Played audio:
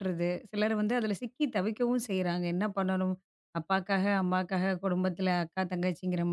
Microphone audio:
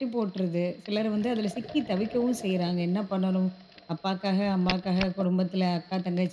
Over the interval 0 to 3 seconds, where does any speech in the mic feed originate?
echo only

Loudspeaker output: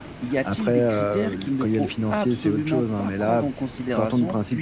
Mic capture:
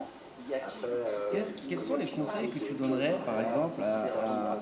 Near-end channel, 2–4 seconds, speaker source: both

